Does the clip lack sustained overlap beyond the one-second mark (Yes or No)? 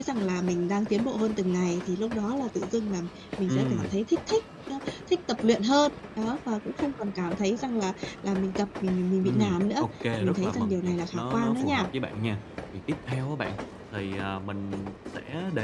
No